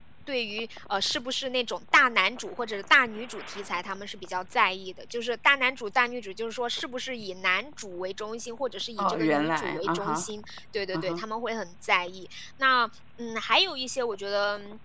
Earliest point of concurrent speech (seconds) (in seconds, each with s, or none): 9.0 s